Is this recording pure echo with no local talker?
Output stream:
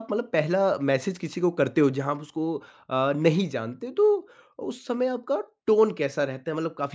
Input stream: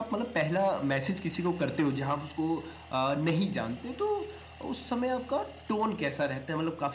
Yes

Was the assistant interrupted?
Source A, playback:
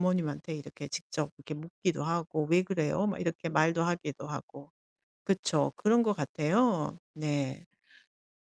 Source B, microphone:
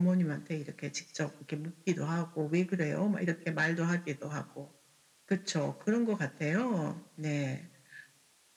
No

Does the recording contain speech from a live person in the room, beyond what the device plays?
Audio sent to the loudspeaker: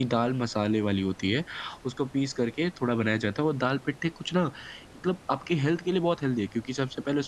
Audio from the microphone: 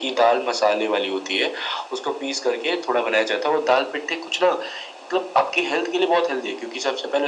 No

